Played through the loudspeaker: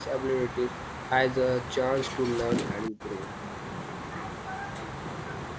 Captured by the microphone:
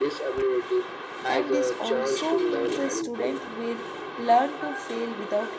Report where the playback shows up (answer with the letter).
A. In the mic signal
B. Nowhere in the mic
A